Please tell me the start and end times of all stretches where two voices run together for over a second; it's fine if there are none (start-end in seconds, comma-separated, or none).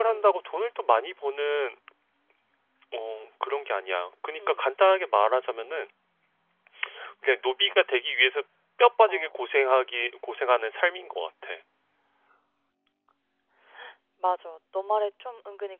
none